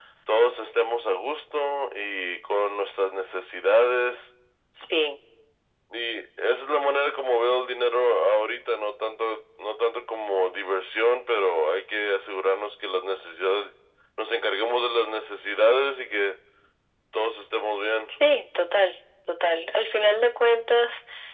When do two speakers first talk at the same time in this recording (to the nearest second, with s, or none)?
none